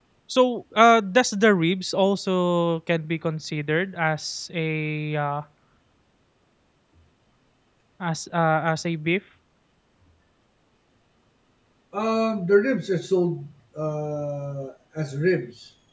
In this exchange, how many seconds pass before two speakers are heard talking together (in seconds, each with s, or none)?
none